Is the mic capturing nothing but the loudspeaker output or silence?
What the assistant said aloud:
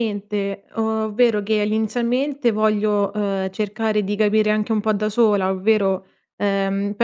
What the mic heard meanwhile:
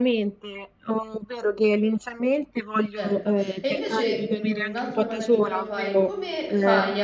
No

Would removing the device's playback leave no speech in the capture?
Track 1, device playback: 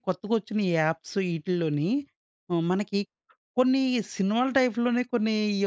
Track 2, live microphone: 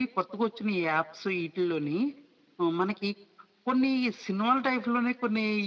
Yes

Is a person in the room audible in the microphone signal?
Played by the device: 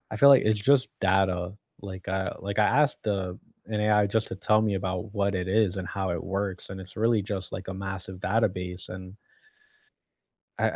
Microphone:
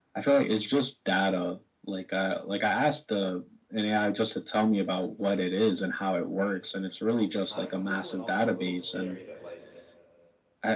Yes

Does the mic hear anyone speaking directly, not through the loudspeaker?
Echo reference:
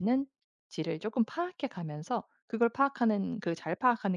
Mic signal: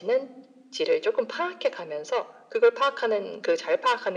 No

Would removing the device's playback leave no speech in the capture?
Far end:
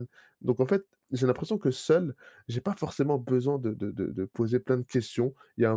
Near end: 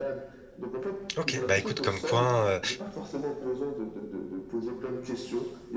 No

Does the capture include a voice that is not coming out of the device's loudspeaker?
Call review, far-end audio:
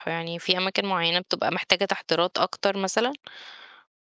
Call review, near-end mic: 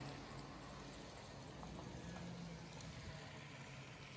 No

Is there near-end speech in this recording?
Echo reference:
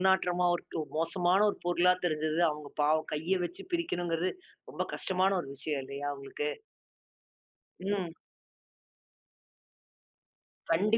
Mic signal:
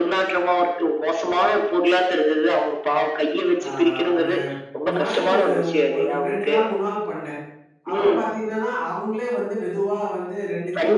Yes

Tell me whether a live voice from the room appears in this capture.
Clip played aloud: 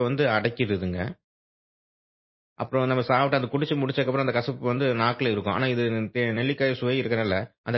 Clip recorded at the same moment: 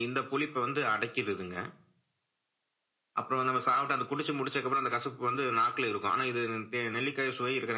No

